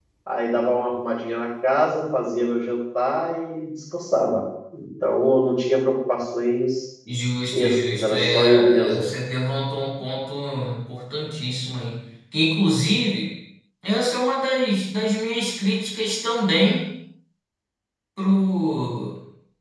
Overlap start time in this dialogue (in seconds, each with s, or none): 7.5 s